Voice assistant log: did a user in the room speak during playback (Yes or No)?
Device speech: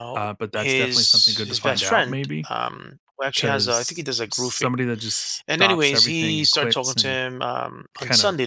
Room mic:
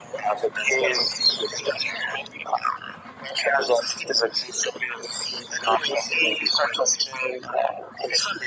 No